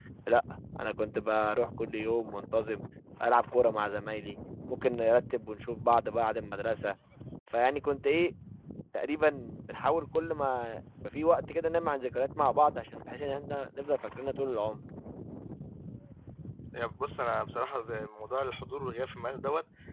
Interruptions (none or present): none